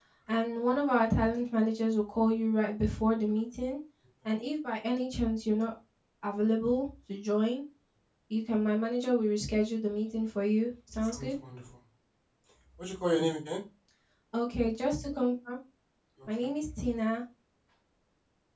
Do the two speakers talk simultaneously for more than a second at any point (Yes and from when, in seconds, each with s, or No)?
No